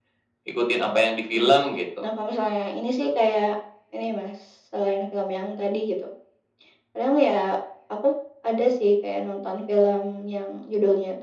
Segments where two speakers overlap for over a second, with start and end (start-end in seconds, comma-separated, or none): none